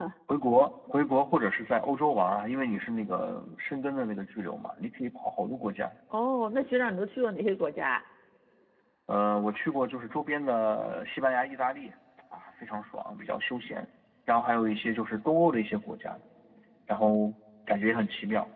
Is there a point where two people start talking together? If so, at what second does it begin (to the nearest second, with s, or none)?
none